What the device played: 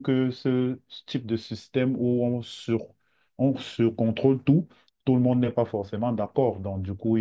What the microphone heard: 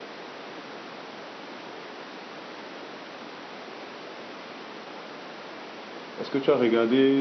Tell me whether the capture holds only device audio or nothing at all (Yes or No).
No